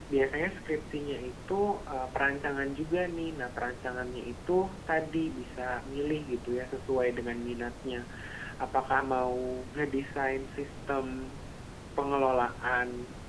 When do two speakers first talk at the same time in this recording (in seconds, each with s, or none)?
none